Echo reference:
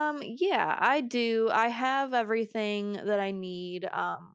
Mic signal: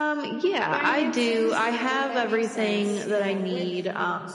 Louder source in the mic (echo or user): echo